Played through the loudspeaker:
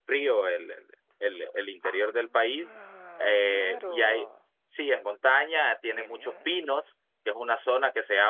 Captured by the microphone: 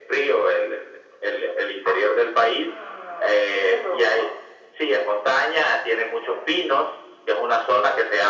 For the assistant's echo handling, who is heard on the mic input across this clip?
echo only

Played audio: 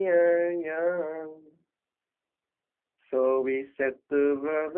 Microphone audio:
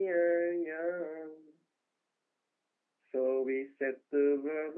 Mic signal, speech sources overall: echo only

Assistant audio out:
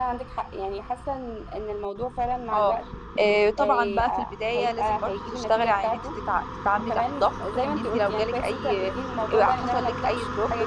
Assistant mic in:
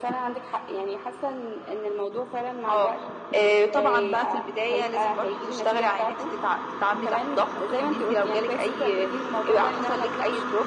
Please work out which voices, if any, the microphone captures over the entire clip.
echo only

